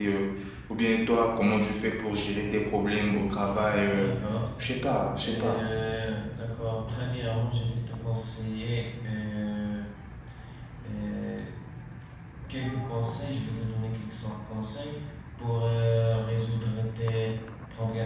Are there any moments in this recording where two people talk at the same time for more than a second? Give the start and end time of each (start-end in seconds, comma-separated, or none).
none